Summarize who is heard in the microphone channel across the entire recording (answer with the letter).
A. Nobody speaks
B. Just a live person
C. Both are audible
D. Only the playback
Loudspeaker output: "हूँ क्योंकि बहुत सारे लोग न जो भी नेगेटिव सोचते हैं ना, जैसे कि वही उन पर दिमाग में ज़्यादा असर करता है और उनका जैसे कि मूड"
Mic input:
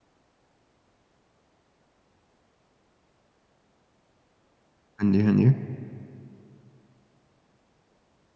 B